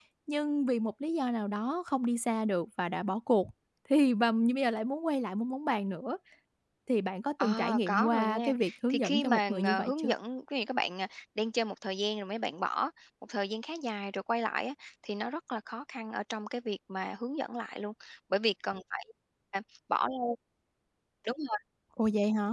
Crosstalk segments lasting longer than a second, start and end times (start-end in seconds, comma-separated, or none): 7.4-10.1